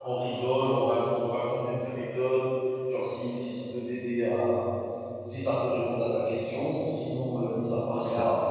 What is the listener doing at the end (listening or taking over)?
listening